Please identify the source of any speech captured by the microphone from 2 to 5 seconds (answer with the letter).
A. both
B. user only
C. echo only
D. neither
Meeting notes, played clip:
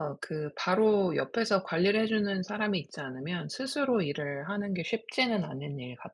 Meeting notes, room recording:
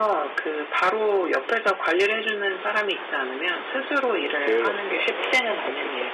A